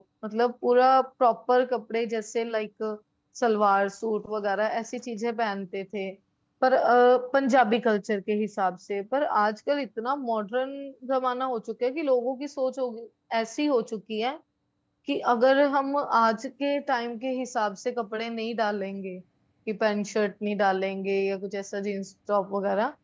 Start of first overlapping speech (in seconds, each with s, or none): none